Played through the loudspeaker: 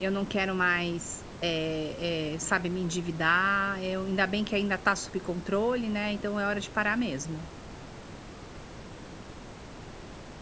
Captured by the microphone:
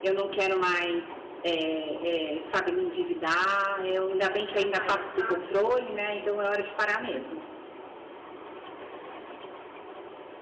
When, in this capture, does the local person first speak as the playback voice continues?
5 s

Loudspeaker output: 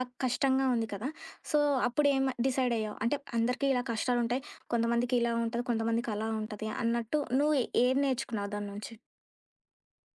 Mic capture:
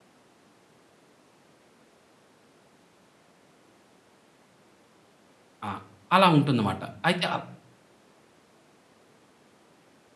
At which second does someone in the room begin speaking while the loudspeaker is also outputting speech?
6 s

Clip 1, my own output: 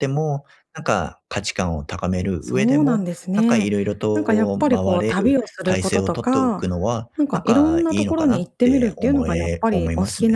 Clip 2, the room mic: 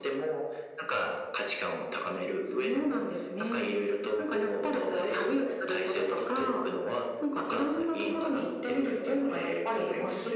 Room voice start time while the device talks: none

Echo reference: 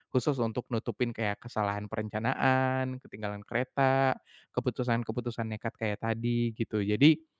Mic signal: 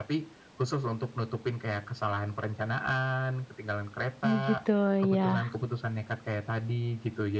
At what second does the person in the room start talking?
4 s

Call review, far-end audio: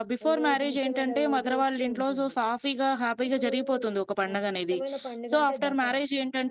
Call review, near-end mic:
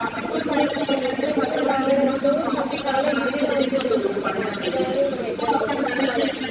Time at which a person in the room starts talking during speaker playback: 1 s

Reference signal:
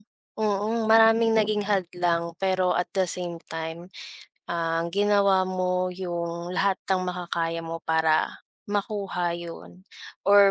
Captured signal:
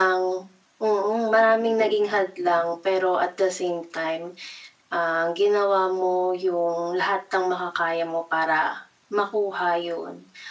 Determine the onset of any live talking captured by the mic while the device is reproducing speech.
none

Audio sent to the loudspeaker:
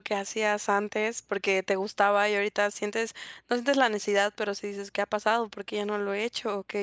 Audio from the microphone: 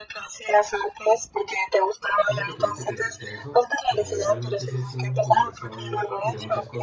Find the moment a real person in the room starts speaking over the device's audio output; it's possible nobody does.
2 s

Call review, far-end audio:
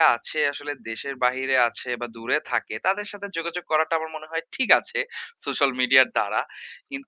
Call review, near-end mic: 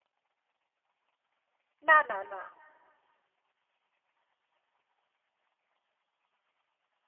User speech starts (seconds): 2 s

